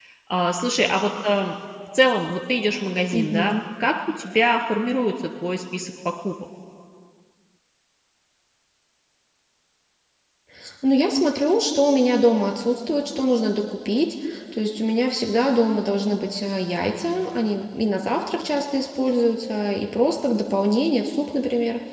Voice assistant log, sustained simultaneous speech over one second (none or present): none